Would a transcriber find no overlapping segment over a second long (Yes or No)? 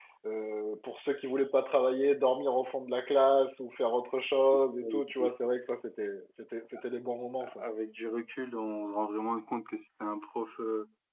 Yes